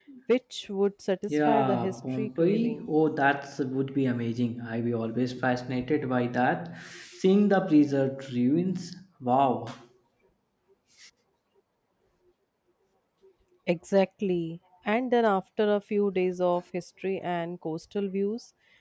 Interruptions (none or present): present